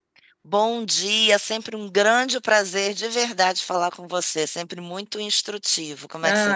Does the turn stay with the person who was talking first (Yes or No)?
No